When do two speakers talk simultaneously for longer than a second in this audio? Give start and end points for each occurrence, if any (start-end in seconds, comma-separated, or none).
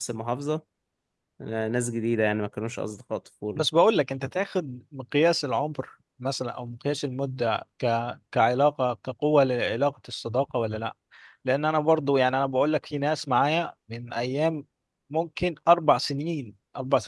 none